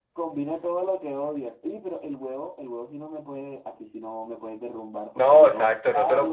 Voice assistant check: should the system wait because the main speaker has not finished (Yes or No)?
No